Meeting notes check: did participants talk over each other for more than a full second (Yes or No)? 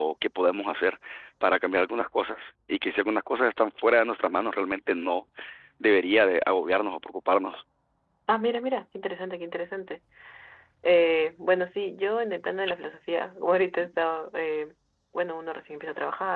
No